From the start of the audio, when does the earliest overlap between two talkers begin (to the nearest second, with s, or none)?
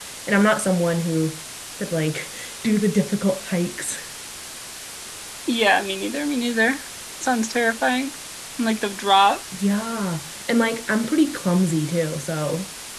none